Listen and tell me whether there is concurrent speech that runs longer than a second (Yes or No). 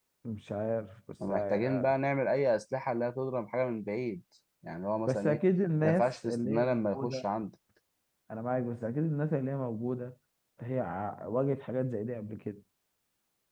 Yes